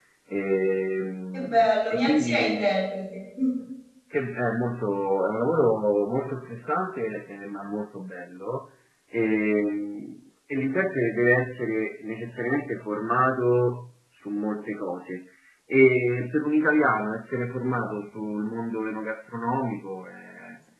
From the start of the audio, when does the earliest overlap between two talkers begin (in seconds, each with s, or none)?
1.3 s